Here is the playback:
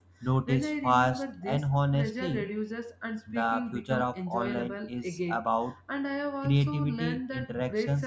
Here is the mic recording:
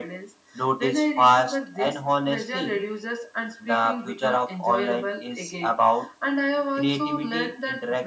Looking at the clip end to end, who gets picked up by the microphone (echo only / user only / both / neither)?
echo only